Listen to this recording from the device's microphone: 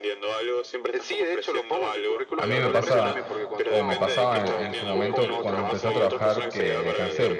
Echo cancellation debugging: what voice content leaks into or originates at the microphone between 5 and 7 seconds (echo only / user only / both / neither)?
both